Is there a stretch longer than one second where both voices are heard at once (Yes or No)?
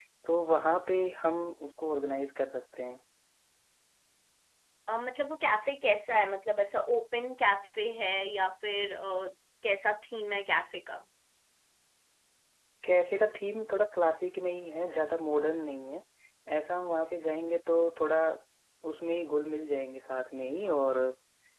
No